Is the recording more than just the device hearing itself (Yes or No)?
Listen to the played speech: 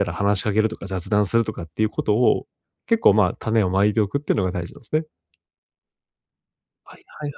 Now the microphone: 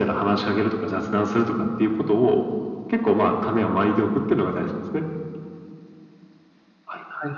No